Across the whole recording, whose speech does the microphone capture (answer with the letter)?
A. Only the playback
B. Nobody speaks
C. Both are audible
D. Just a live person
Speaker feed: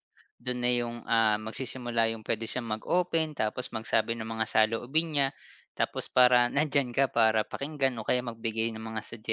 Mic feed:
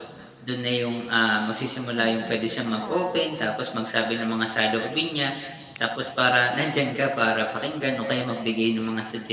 C